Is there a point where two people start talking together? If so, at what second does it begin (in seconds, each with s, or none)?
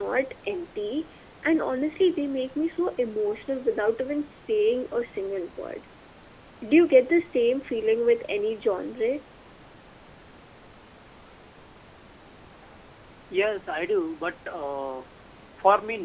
none